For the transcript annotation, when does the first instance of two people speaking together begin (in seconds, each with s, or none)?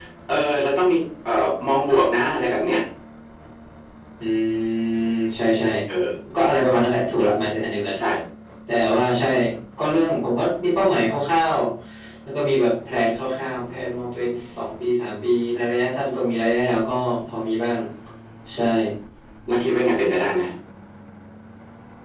none